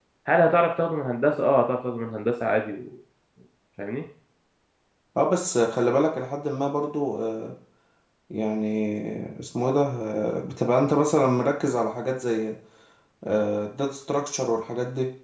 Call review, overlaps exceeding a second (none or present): none